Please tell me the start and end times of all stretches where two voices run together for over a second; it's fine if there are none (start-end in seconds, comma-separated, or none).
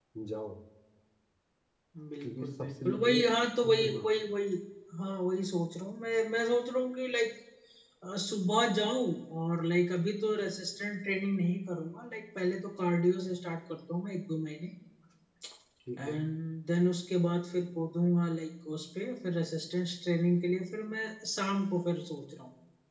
2.2-4.1